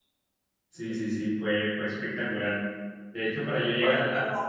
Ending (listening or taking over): listening